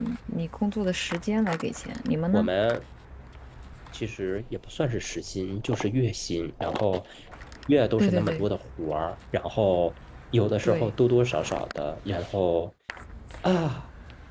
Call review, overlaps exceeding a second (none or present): none